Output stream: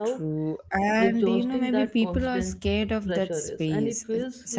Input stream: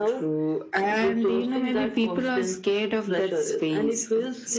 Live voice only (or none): none